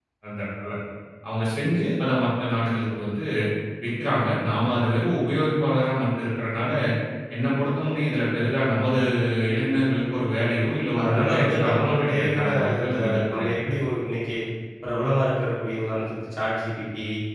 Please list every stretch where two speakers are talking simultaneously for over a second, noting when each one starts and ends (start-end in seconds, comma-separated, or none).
11.0-13.5